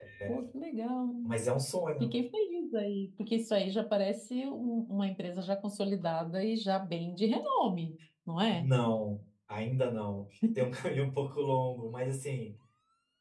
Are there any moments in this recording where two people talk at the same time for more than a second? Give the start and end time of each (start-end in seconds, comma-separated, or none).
none